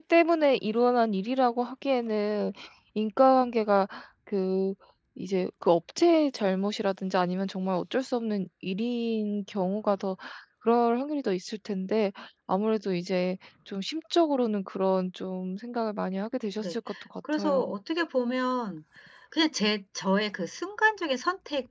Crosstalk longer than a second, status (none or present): none